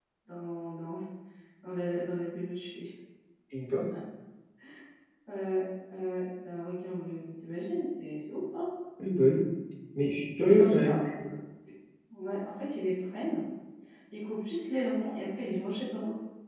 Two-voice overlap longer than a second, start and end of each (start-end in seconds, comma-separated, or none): none